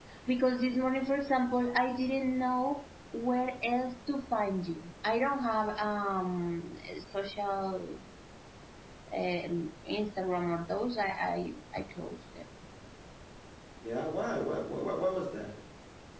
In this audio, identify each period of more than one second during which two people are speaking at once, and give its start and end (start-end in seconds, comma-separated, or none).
none